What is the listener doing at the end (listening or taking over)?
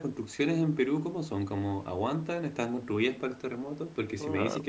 listening